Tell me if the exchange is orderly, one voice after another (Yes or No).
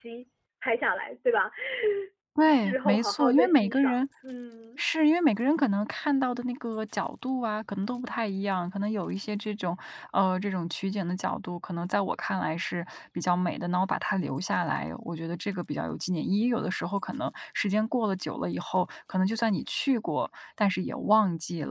No